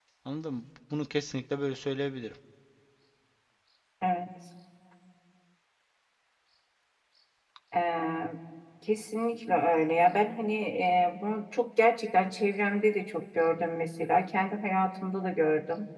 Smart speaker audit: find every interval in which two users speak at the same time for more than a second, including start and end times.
none

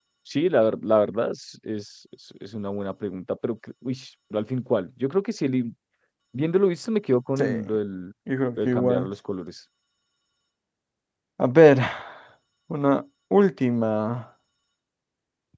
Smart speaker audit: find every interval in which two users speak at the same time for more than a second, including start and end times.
none

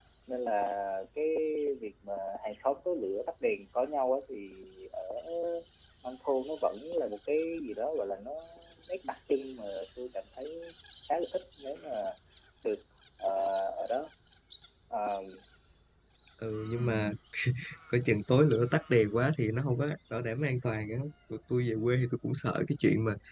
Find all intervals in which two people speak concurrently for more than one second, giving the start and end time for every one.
none

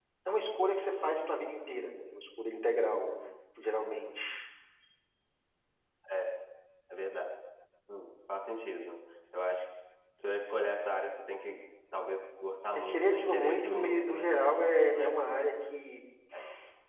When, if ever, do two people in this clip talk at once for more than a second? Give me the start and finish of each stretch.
12.9-14.3

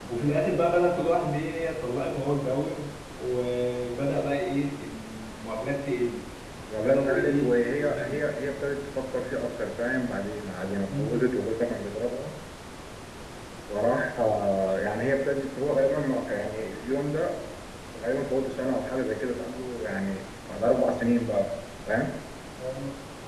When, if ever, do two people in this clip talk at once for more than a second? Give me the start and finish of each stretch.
6.8-8.1

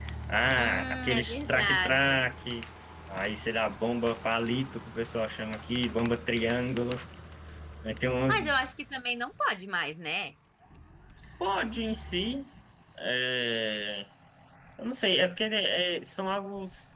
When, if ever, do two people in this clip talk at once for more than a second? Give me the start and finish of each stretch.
0.6-2.2

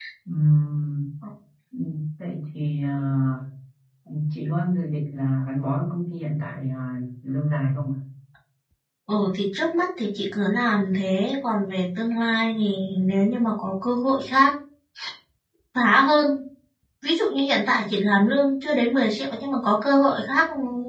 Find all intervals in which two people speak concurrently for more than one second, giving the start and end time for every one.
none

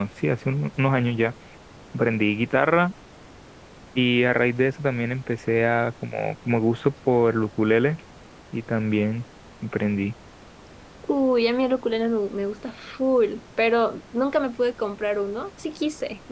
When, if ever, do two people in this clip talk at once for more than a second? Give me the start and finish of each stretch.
none

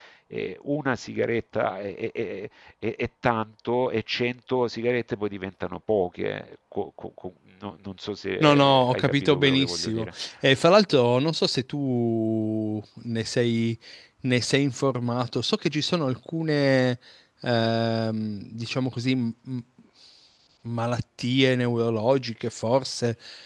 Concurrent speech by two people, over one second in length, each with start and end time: 8.4-10.1

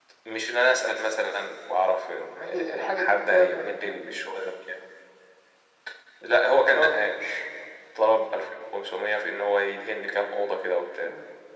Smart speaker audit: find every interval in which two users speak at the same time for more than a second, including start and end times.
2.4-4.2

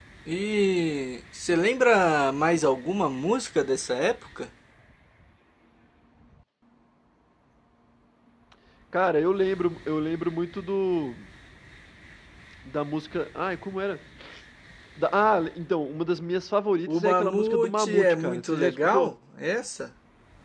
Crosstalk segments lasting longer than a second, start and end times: 16.9-19.1

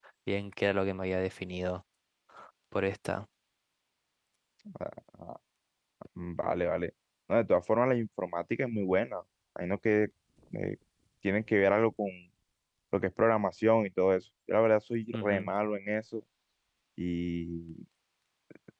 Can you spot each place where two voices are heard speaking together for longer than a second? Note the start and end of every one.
none

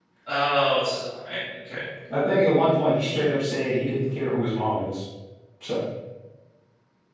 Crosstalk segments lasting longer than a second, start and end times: none

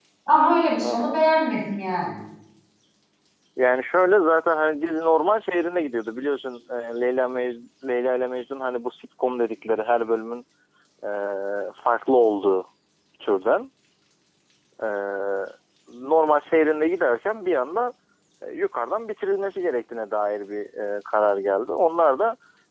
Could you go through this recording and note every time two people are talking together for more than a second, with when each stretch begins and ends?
none

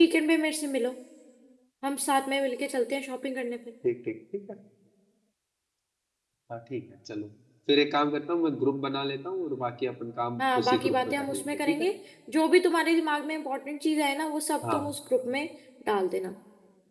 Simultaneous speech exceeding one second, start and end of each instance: 10.4-11.9

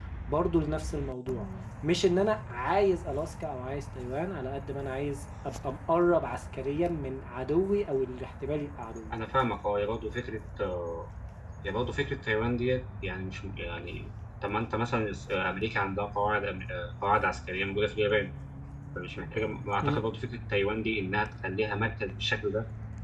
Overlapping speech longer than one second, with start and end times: none

